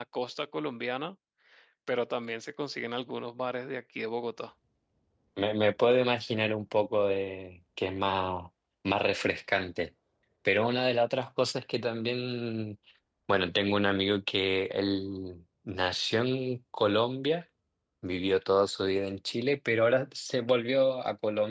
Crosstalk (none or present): none